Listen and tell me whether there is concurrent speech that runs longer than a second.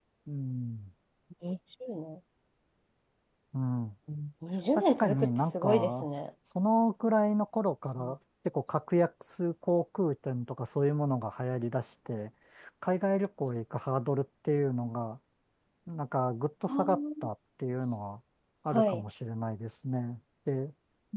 Yes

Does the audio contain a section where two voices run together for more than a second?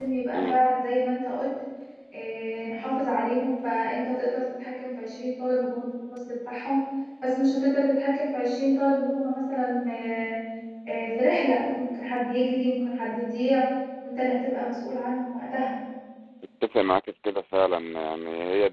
No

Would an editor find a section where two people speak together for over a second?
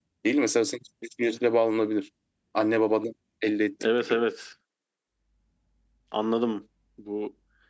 No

